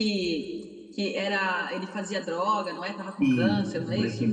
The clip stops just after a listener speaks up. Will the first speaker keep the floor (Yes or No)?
No